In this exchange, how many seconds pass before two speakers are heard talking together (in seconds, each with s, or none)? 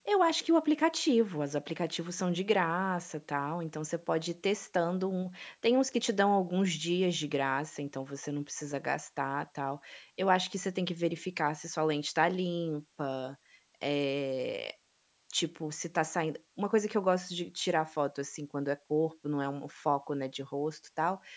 none